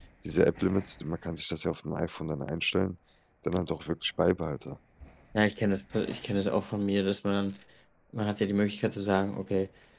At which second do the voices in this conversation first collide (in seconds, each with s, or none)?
none